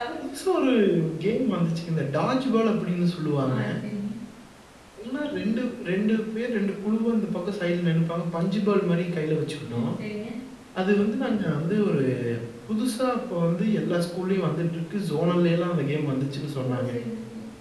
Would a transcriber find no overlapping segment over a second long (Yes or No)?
Yes